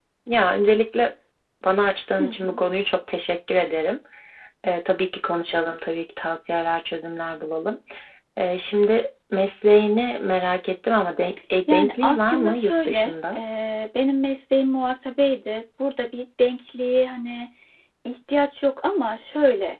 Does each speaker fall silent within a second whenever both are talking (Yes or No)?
No